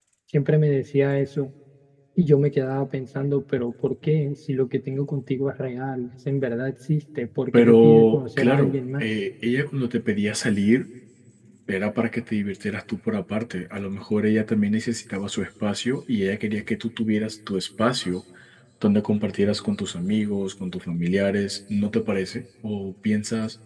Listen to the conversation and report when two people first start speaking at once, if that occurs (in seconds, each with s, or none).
7.5 s